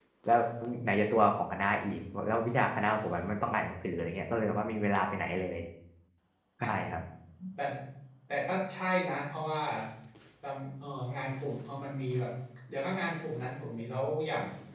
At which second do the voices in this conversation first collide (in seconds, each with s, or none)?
none